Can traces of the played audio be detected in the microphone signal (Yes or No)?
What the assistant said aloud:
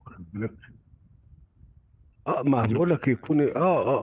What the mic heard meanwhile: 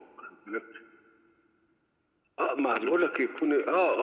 Yes